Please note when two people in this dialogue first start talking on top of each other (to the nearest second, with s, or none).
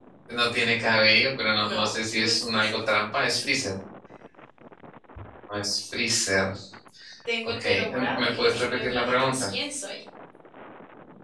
2 s